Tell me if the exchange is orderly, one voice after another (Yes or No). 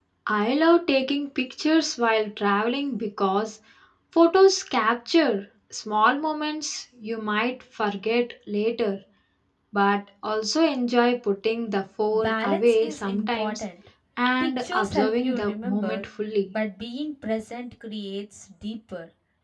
No